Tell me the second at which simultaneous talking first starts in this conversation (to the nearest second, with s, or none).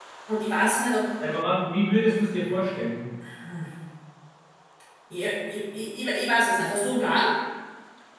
none